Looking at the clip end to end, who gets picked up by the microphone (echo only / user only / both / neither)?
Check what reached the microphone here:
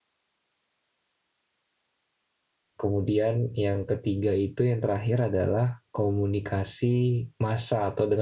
user only